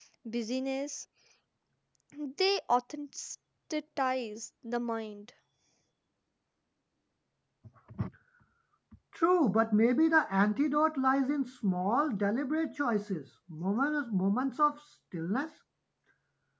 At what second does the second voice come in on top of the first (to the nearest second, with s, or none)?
none